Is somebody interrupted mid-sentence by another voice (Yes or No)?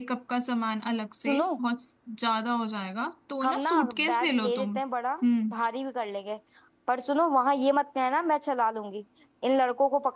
Yes